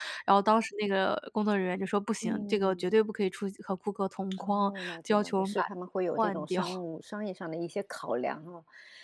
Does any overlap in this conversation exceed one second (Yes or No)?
Yes